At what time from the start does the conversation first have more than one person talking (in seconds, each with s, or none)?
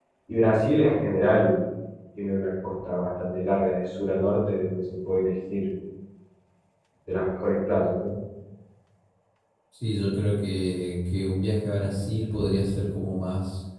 none